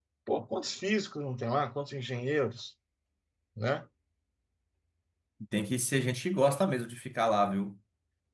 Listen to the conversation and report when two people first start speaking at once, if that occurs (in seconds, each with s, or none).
none